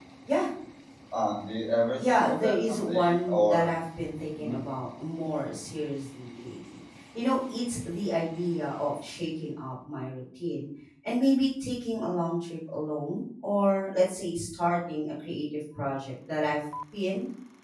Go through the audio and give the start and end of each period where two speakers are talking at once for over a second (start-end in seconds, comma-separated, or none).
2.0-3.7